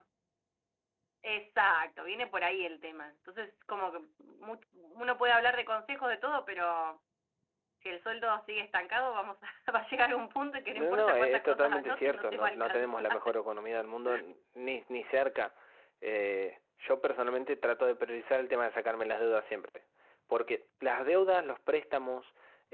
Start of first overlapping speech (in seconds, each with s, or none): 10.8 s